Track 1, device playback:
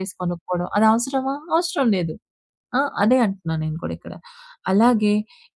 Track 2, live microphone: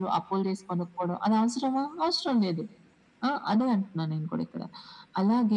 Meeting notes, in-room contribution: none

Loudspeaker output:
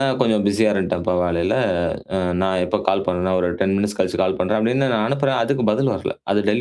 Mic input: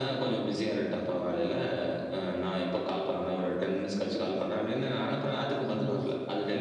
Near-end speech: none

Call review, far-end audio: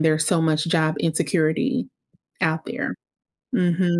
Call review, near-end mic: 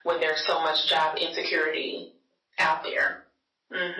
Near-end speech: none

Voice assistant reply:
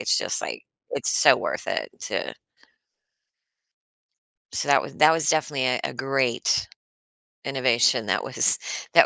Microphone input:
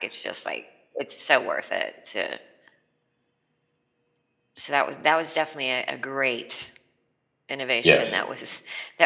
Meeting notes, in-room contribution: present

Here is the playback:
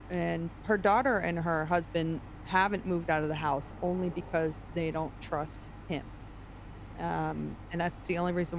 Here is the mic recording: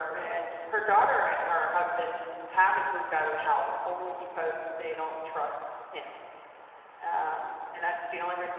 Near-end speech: none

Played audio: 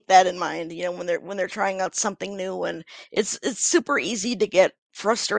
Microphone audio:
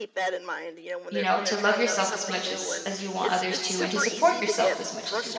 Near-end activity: present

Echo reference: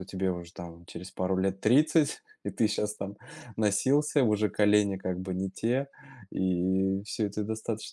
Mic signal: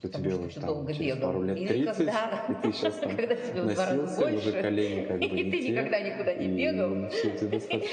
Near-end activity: present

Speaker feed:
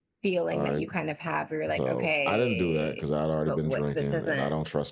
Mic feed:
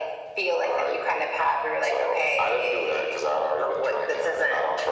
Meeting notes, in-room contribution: none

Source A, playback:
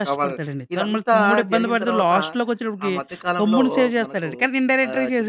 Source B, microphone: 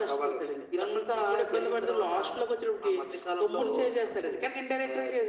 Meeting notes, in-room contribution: none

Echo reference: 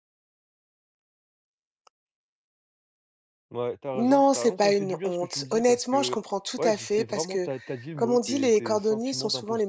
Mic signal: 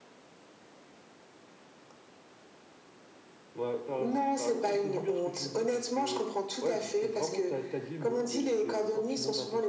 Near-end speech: none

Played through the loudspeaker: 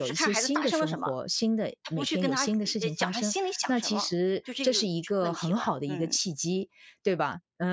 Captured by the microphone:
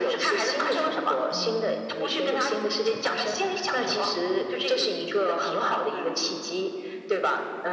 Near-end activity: present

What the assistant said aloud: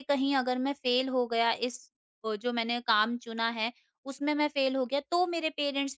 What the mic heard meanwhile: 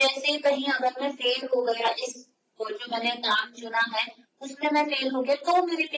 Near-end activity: none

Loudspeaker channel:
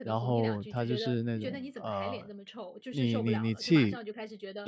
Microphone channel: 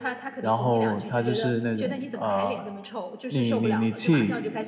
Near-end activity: none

